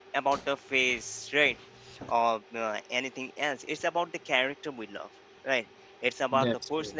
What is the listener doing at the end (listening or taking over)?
listening